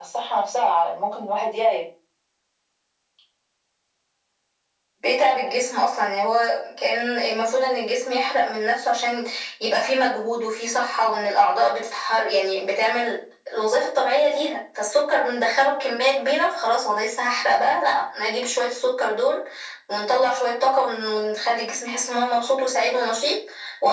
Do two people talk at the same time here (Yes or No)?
No